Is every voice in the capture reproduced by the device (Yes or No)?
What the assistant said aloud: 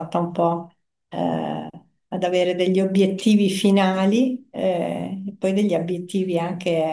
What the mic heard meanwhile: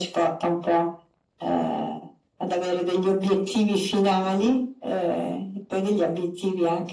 Yes